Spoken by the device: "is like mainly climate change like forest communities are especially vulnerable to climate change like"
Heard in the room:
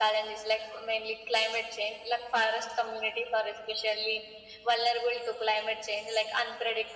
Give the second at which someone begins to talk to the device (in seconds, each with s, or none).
none